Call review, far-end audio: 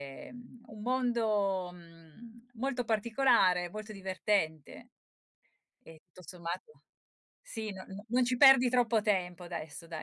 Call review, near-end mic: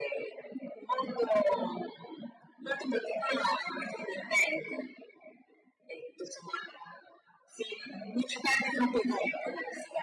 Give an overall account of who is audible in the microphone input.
echo only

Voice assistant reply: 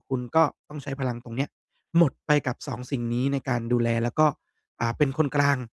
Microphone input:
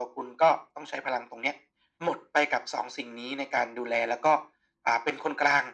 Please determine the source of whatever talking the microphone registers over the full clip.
echo only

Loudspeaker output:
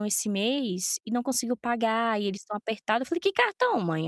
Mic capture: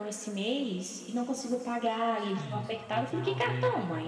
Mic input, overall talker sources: both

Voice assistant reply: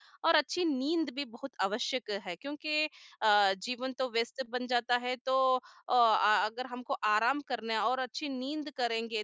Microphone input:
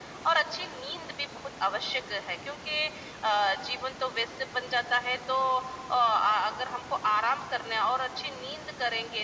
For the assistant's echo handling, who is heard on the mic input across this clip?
echo only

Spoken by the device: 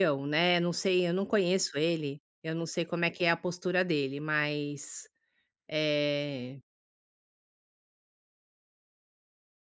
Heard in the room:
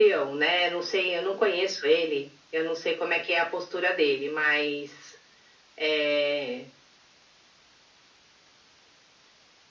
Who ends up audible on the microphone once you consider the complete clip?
echo only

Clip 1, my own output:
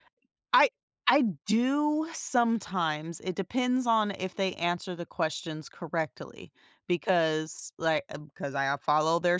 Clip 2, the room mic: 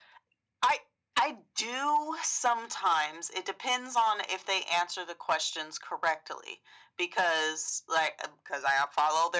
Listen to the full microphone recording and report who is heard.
echo only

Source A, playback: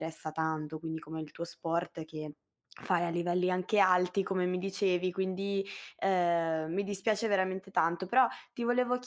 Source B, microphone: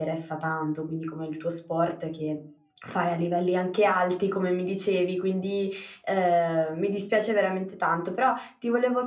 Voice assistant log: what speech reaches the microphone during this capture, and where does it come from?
echo only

